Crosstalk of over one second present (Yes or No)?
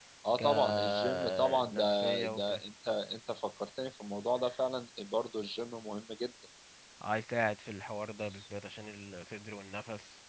Yes